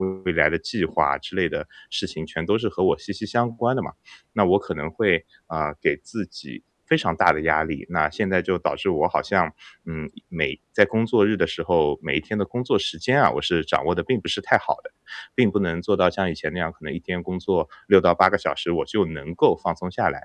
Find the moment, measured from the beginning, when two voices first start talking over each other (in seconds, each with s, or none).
none